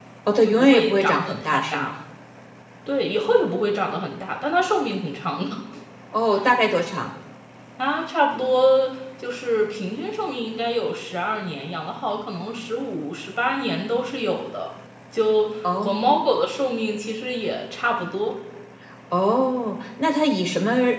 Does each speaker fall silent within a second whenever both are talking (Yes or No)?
No